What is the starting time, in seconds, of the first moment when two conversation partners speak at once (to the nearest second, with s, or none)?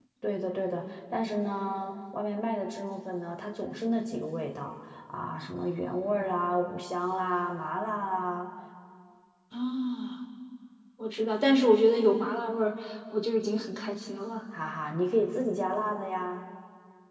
none